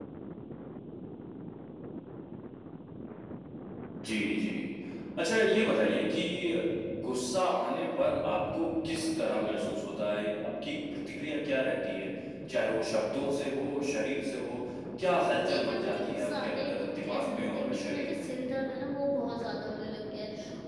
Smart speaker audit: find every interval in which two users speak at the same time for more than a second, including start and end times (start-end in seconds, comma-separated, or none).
15.5-18.3